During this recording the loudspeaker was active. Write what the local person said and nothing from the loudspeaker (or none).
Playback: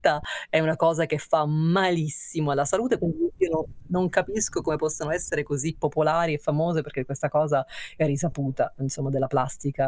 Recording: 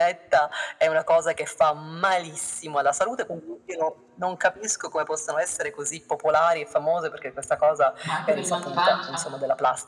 Ma anche per i mal di pancia.